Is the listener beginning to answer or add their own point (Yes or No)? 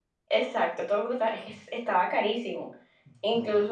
No